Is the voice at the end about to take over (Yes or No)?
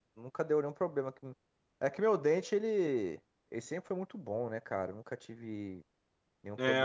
Yes